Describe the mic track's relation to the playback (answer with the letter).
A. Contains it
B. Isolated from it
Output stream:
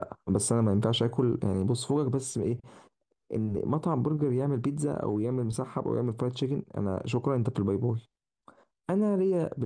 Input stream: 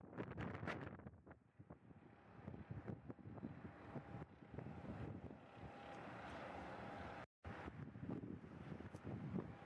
B